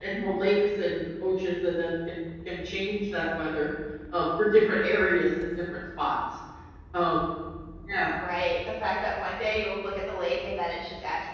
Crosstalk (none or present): none